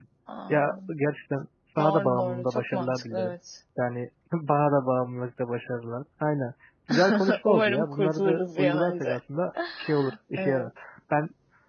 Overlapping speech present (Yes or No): Yes